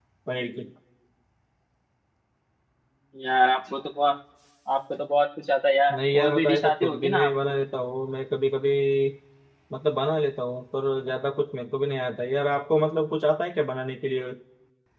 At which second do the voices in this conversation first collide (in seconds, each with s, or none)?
5.9 s